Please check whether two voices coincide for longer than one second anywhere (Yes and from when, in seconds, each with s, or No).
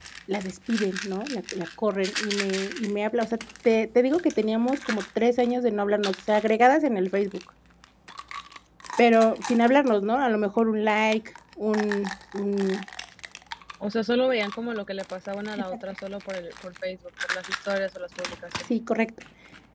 No